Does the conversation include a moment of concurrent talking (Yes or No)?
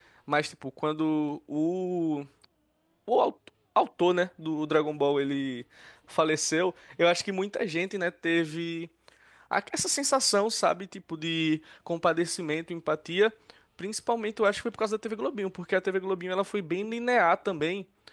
No